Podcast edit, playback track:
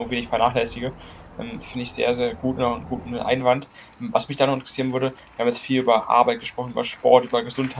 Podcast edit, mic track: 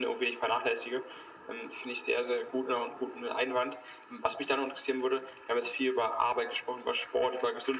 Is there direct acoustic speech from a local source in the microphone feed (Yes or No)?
No